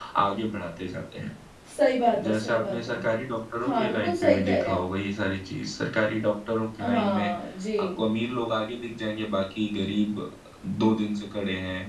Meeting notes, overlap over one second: present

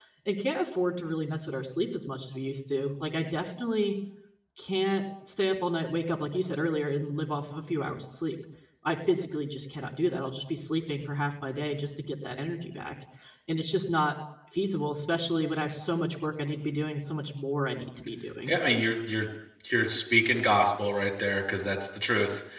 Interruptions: none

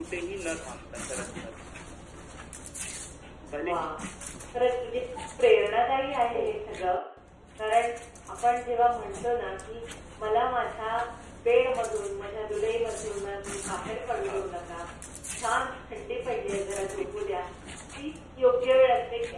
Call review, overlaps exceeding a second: none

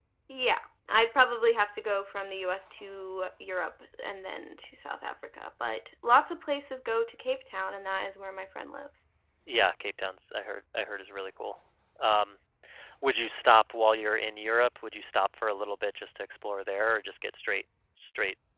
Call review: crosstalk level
none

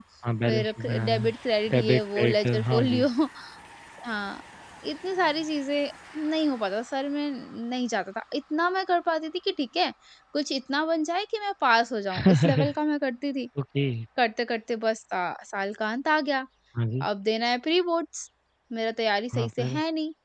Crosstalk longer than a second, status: present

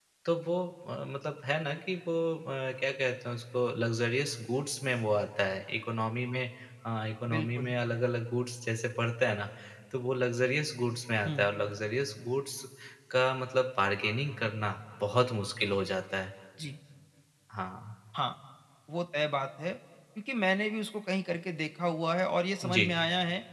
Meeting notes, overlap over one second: none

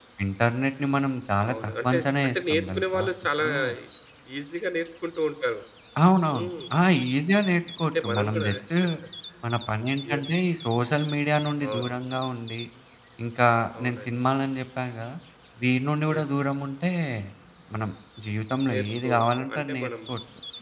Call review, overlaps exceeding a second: present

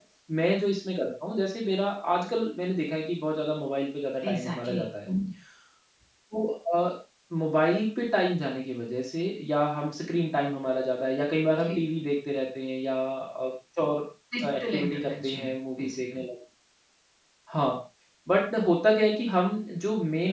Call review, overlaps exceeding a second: present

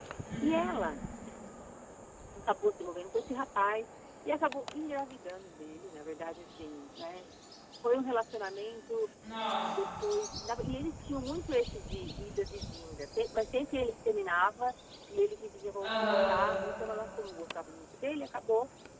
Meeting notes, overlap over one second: none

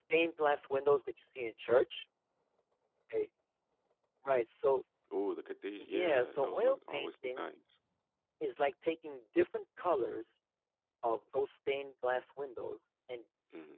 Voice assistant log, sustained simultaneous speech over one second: present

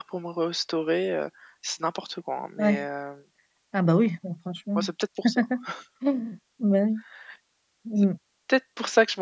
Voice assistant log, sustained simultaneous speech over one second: none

